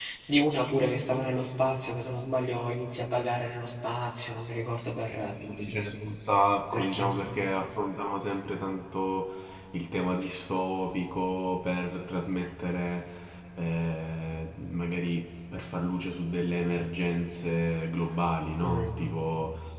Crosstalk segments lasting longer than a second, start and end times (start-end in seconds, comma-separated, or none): none